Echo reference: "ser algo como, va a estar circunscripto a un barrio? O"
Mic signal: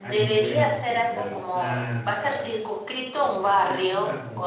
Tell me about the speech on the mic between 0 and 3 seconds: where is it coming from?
both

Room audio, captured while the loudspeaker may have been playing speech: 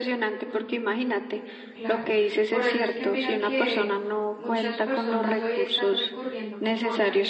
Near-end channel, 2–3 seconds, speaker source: both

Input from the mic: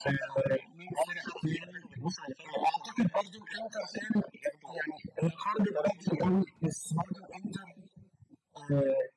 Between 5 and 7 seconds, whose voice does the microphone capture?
echo only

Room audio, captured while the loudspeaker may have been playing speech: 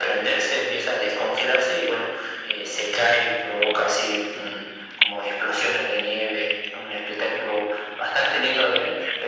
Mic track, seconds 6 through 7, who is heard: echo only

